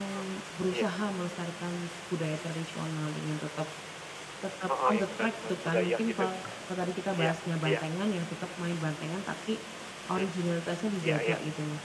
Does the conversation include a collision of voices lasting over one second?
Yes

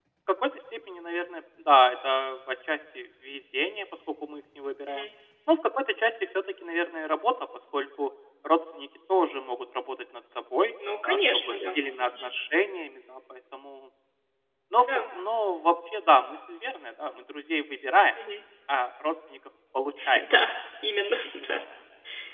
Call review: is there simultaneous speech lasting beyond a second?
Yes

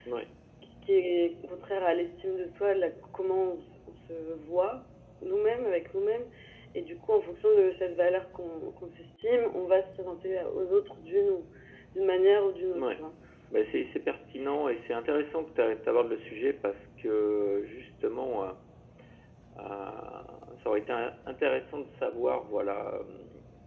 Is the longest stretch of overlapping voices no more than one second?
Yes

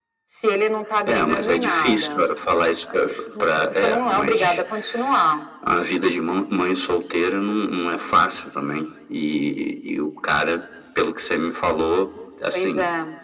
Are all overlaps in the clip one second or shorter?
No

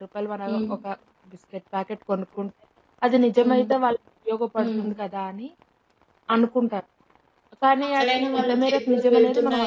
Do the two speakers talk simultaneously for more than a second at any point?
Yes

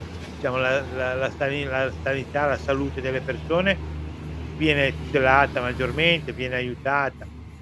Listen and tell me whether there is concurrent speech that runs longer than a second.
No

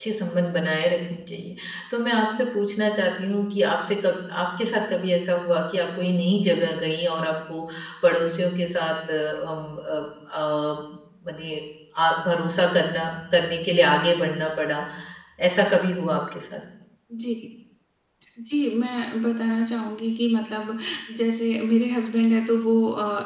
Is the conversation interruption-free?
Yes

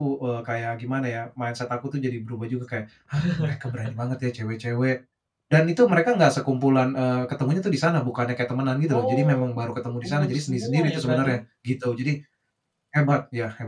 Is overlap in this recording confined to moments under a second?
No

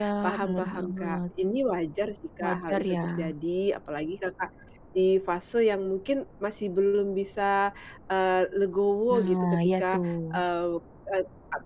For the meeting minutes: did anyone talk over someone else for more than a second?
Yes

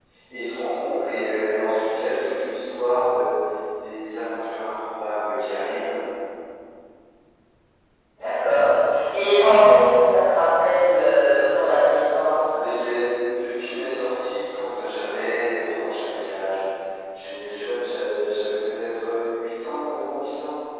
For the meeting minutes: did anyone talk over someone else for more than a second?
No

